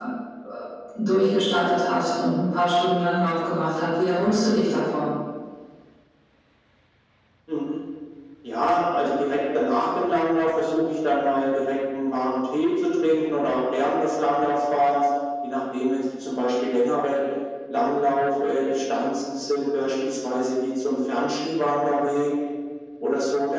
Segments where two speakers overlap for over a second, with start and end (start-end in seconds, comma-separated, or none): none